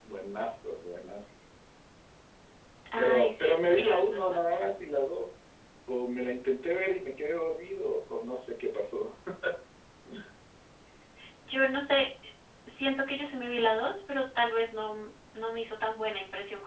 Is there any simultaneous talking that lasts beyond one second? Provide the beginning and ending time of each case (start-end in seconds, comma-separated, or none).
3.0-4.4